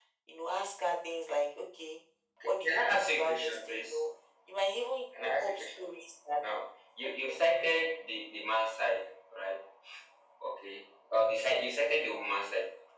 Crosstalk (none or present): present